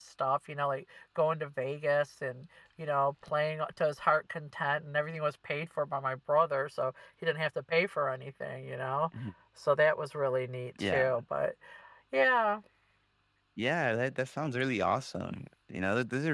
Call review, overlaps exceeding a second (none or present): none